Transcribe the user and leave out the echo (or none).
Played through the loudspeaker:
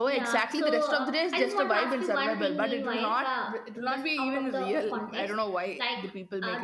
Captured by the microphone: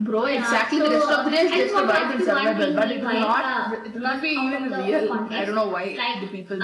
none